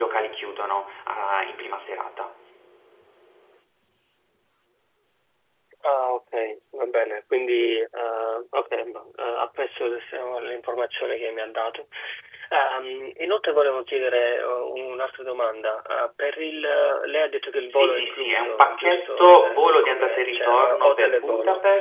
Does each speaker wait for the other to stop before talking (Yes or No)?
No